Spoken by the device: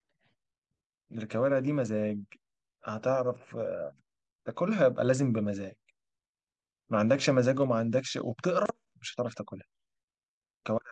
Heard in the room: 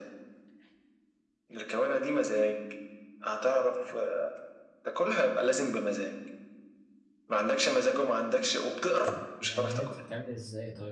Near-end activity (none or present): present